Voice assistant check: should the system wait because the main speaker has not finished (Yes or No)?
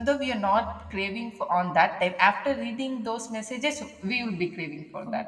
No